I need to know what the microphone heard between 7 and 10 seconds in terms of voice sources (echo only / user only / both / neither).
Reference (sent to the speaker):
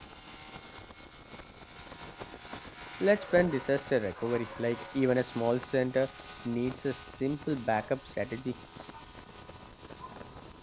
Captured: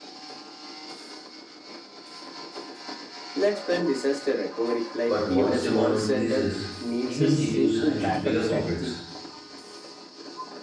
both